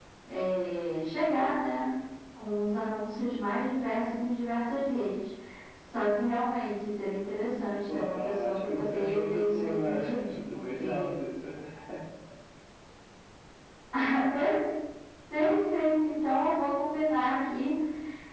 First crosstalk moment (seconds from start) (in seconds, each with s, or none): 7.9 s